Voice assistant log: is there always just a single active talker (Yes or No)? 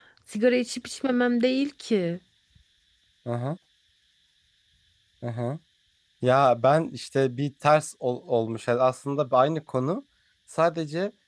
Yes